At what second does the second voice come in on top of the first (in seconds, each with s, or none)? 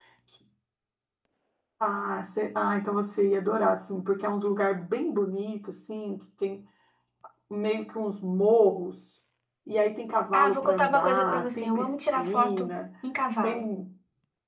10.3 s